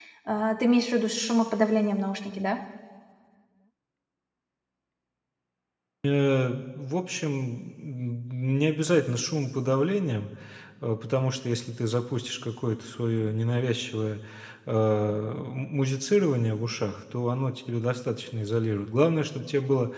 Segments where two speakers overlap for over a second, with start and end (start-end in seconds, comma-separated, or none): none